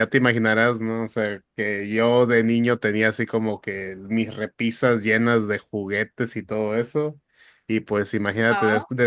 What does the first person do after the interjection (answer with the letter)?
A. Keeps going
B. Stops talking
A